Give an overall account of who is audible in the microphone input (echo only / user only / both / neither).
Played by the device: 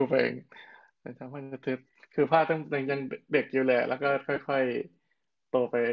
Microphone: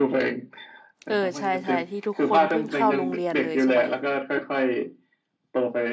both